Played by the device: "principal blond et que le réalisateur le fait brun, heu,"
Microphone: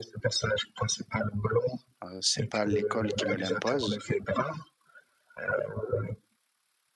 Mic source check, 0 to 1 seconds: echo only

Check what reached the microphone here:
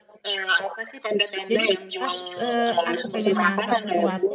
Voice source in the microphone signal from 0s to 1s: echo only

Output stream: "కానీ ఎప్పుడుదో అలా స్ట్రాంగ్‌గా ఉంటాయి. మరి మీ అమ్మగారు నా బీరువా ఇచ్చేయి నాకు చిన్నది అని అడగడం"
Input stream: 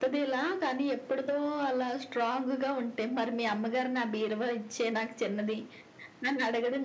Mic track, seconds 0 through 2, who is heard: echo only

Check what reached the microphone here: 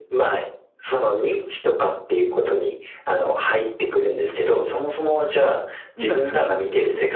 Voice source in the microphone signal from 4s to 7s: both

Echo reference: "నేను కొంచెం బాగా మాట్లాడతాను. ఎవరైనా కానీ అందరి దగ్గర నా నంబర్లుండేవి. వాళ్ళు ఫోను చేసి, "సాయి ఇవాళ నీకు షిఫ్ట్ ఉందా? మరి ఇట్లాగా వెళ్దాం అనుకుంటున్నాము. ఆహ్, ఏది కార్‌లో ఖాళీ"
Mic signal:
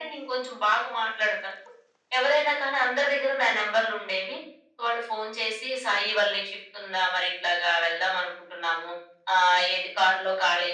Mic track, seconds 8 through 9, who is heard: echo only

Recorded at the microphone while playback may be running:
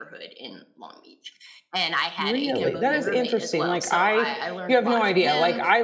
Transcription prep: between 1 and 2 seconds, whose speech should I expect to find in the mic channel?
echo only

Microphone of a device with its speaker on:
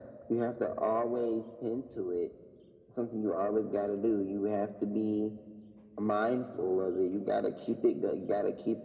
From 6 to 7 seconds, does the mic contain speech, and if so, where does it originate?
echo only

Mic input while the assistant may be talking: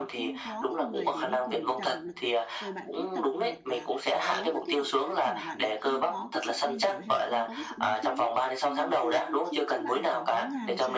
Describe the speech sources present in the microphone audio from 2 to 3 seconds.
both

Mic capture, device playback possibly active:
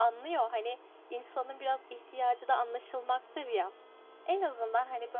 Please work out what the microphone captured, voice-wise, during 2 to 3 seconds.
echo only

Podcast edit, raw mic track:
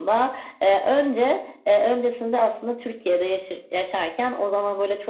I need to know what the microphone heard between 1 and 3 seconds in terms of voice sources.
echo only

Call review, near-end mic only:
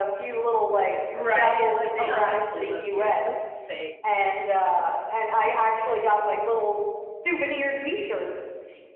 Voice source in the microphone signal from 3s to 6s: both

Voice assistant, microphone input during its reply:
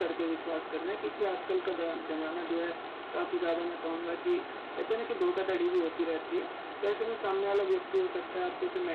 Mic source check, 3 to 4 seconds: echo only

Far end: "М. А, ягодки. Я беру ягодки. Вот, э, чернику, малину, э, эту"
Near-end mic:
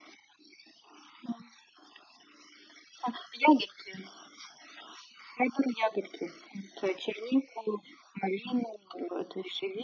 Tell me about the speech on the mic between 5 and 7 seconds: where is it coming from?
echo only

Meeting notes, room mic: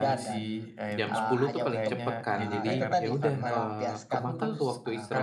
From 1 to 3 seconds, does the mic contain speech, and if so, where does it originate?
both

